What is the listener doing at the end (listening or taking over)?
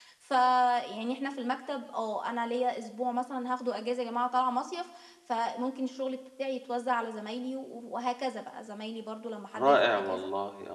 taking over